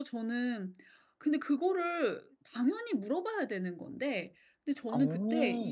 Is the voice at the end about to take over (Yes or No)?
No